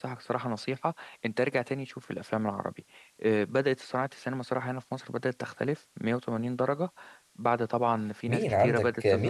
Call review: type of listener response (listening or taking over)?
taking over